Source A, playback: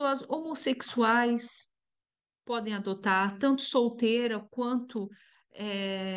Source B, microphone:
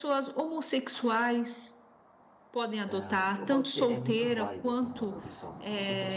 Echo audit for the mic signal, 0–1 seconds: echo only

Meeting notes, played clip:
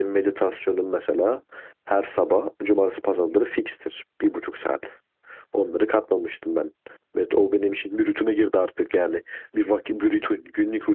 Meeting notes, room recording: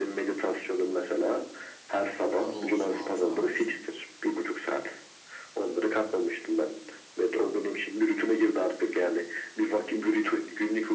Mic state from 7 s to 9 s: echo only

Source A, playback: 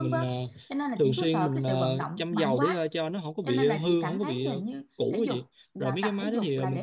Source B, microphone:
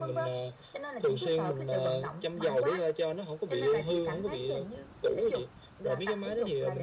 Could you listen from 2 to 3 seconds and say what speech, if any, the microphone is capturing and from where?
echo only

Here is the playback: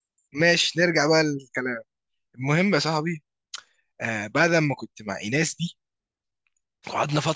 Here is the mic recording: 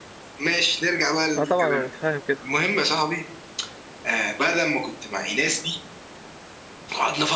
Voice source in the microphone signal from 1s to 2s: both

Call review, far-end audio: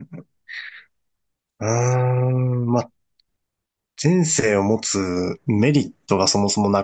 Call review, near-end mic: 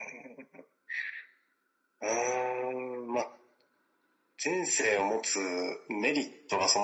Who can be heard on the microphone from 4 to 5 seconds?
echo only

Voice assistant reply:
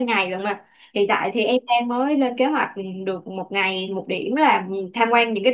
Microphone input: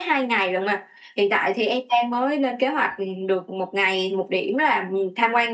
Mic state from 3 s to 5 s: echo only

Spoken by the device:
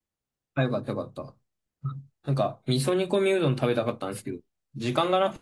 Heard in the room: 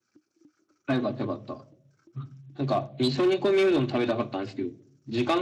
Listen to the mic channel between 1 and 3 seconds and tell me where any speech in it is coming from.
echo only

